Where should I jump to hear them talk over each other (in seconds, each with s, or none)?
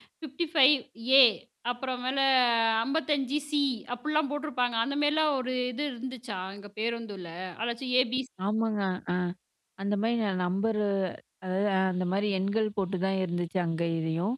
none